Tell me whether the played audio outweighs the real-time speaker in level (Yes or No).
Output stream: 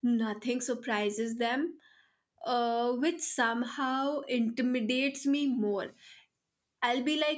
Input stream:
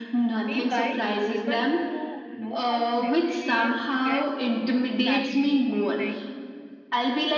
Yes